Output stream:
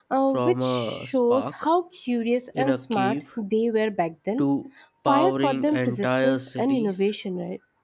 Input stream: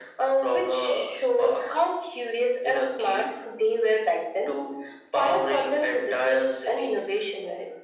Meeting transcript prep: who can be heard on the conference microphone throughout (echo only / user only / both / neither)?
echo only